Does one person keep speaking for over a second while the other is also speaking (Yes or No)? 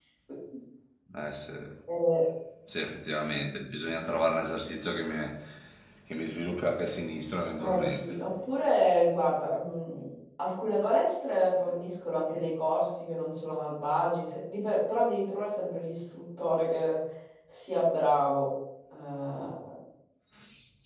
No